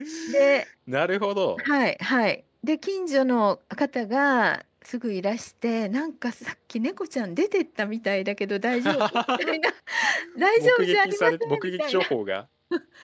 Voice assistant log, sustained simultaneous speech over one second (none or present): present